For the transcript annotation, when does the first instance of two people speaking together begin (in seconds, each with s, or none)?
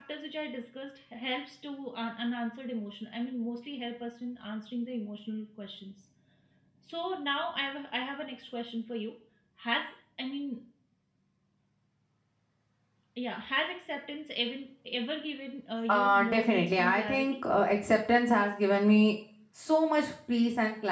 15.9 s